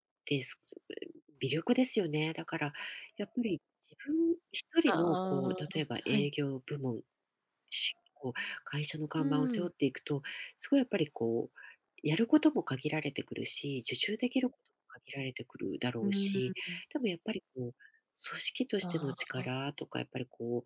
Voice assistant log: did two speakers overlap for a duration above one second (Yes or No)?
Yes